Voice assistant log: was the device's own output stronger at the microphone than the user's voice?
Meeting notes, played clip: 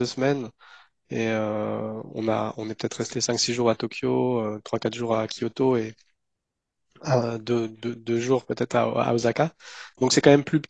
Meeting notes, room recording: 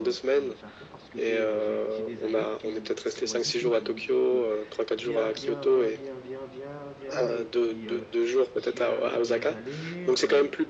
Yes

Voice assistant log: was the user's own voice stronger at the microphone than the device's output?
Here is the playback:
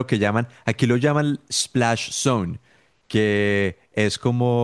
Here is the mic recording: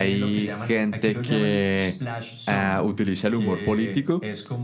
Yes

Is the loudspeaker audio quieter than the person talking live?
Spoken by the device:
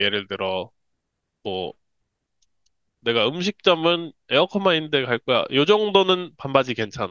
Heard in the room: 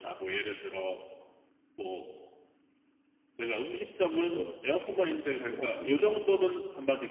No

